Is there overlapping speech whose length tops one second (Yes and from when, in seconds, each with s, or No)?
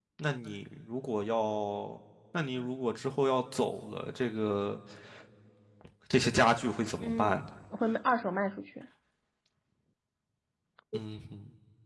No